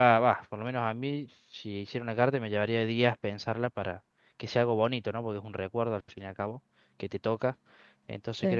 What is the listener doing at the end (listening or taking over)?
listening